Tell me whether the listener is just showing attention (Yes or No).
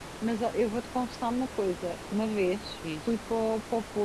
Yes